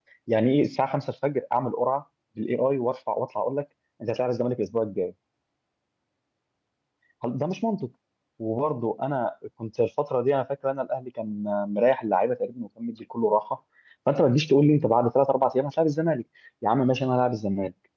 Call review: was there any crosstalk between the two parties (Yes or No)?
No